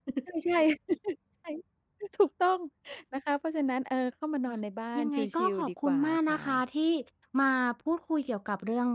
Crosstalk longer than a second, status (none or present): present